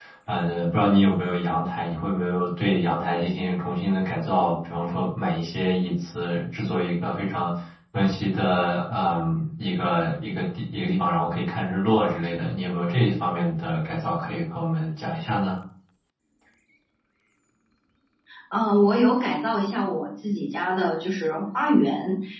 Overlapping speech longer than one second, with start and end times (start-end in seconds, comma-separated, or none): none